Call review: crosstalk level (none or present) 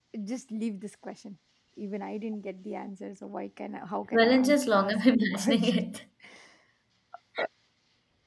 present